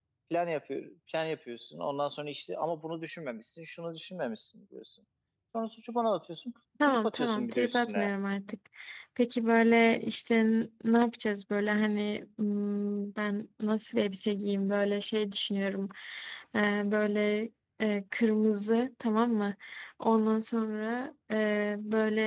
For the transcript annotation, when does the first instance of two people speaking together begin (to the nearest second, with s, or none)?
7 s